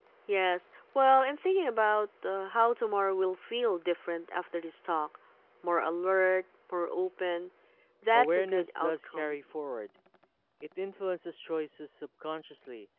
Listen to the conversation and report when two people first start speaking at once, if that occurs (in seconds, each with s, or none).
8.1 s